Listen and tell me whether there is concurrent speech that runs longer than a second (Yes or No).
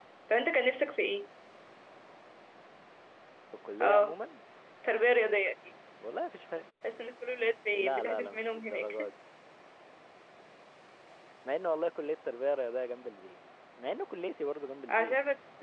Yes